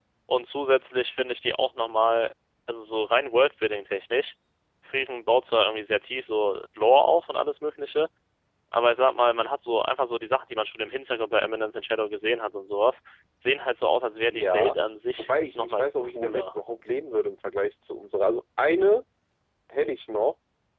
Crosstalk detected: Yes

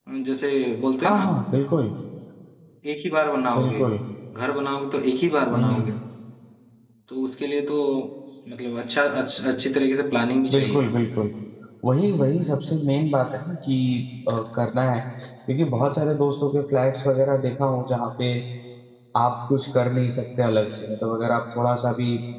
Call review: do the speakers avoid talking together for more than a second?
Yes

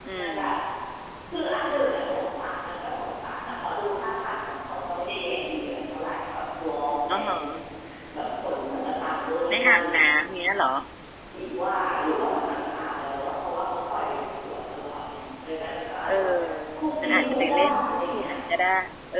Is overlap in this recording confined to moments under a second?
No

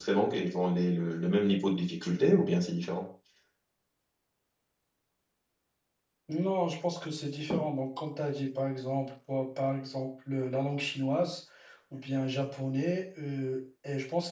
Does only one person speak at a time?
Yes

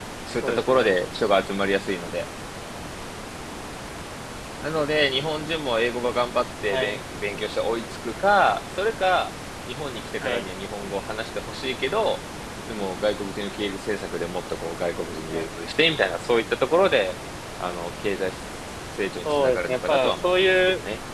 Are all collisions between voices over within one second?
No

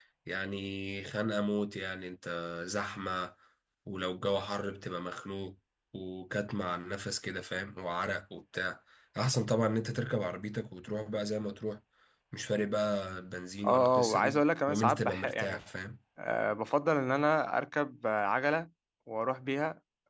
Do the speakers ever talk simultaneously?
Yes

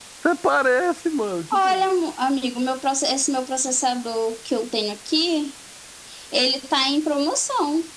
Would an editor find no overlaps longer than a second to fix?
Yes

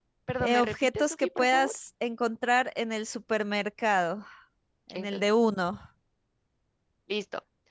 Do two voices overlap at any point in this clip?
Yes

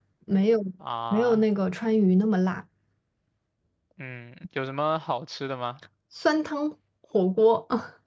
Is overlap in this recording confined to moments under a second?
Yes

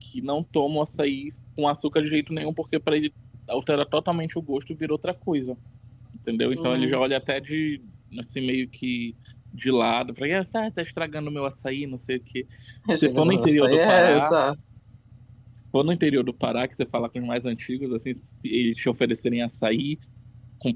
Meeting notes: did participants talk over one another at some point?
Yes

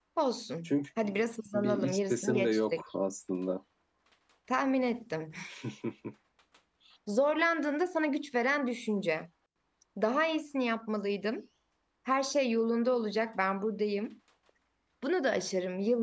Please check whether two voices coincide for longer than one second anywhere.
Yes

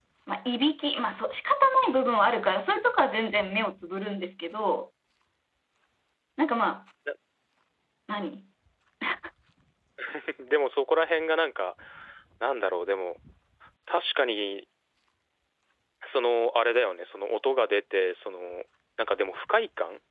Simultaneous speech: No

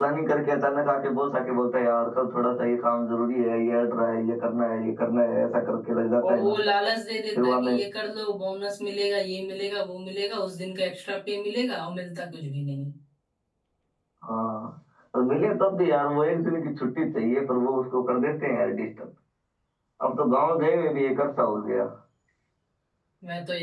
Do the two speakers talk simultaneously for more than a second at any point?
No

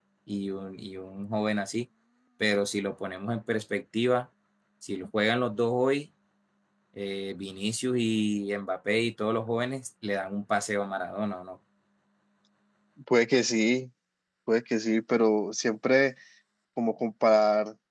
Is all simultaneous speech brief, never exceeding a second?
Yes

